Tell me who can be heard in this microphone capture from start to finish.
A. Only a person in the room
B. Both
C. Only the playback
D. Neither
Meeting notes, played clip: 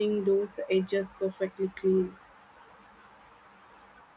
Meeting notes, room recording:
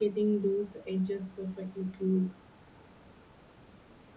C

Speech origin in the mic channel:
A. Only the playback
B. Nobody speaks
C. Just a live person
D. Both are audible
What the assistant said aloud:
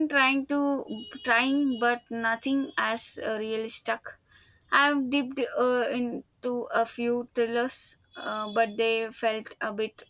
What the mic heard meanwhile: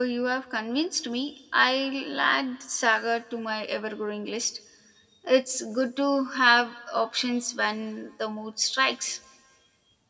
C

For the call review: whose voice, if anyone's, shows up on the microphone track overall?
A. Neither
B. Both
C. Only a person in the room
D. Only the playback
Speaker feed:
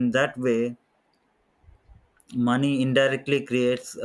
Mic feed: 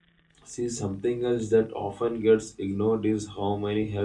C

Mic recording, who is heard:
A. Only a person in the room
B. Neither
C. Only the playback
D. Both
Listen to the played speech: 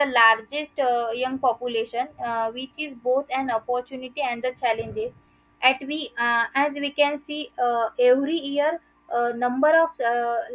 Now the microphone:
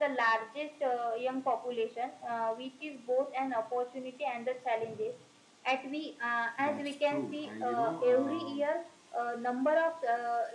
D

